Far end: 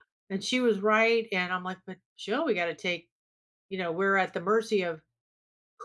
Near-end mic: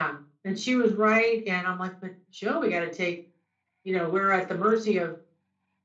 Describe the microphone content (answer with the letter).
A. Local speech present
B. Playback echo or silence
B